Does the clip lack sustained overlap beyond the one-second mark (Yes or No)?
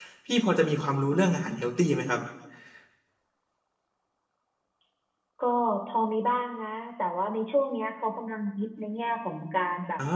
Yes